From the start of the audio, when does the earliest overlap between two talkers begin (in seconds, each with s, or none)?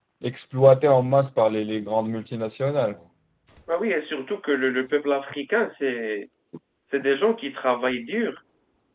none